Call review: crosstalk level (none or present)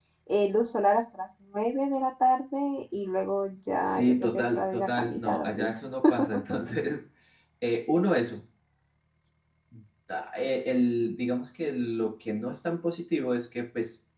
present